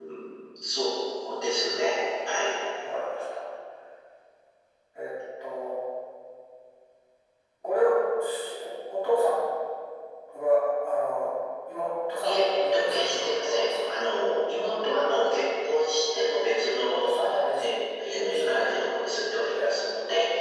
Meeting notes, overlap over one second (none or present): present